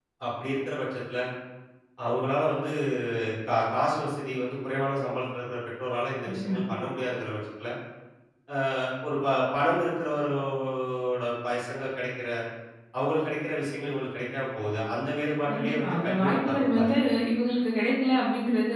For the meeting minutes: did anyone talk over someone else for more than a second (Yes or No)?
Yes